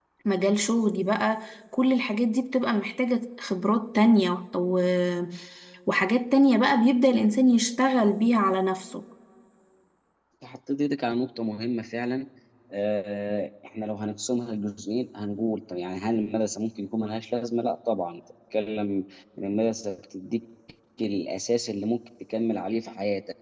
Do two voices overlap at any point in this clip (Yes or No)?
No